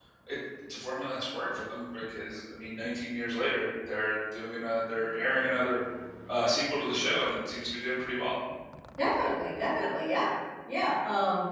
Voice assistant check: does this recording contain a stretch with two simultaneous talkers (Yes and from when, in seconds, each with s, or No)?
No